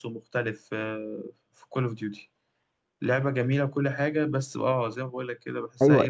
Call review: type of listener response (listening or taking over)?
taking over